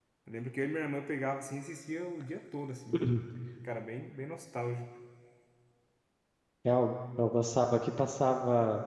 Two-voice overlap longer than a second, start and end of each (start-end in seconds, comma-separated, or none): none